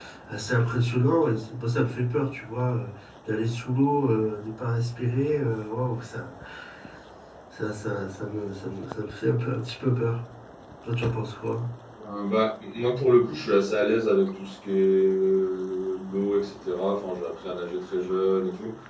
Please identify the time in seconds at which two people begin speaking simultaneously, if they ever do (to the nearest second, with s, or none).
none